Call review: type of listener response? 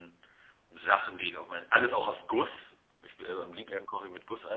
listening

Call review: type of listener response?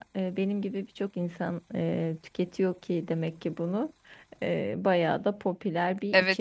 taking over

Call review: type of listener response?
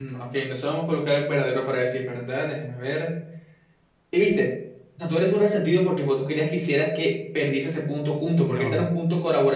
listening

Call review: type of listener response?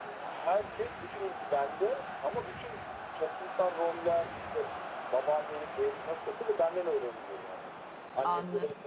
taking over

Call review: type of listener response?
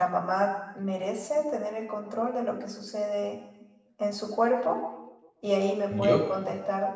listening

